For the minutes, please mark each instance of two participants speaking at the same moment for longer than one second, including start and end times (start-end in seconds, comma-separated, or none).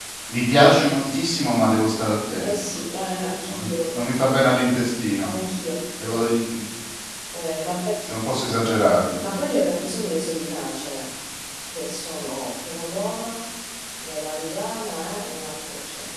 none